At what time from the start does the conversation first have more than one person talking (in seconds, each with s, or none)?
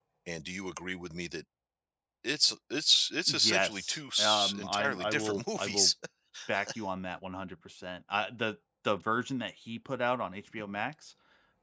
3.3 s